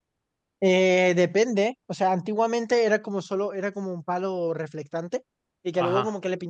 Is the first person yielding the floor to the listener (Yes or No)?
No